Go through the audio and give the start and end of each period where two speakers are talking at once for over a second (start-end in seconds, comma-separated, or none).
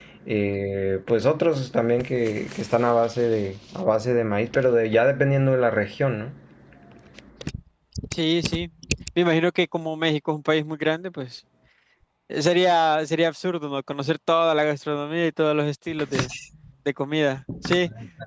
none